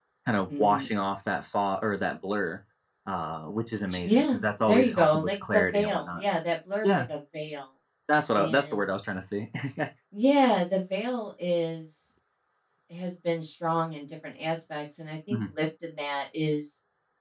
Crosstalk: present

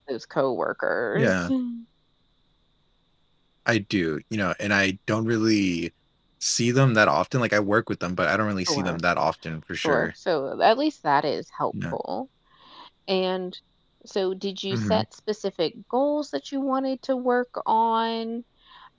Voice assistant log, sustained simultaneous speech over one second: none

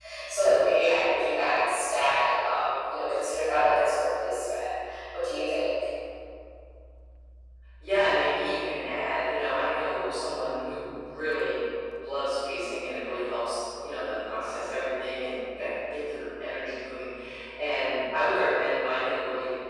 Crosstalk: none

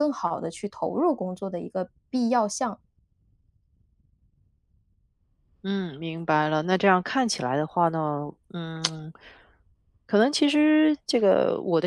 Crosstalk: none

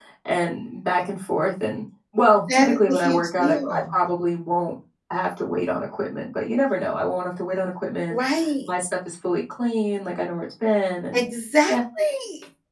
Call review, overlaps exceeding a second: present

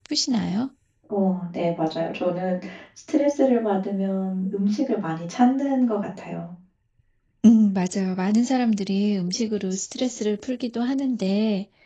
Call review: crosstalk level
none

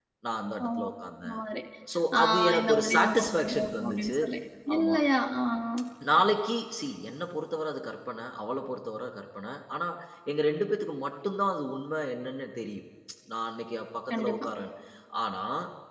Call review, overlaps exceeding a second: present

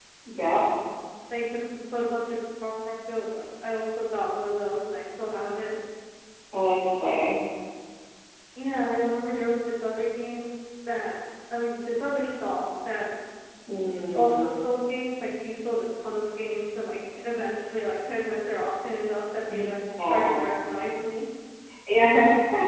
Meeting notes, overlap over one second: none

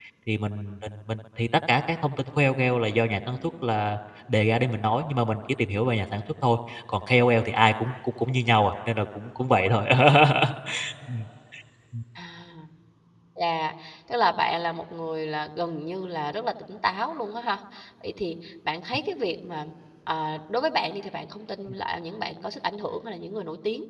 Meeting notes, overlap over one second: none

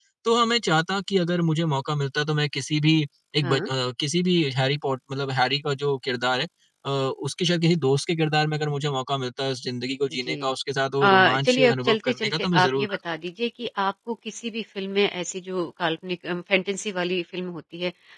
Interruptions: present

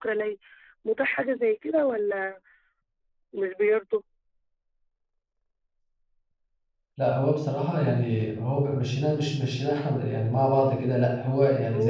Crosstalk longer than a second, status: none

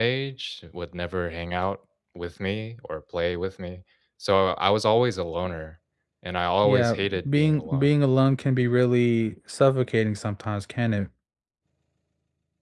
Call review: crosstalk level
present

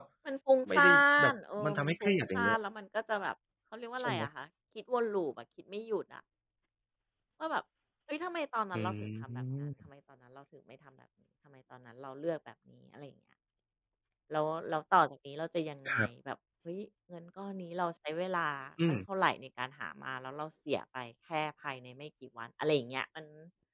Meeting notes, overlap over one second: present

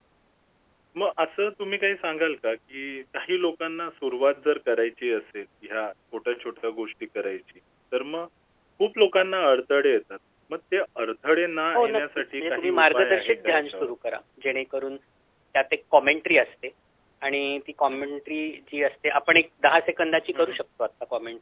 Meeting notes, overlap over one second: present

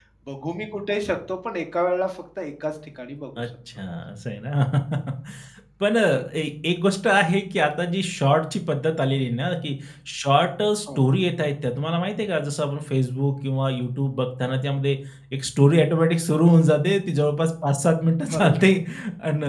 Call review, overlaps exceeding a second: none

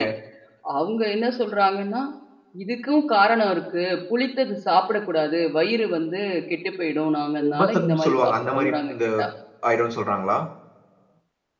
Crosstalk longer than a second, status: present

